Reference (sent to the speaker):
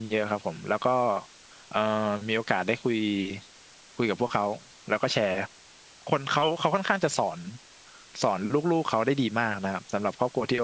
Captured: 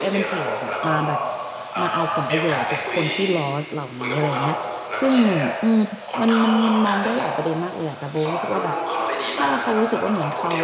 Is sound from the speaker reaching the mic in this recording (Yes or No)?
Yes